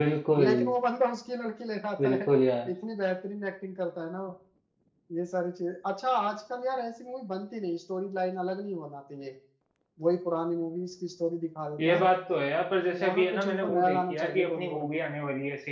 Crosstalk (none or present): present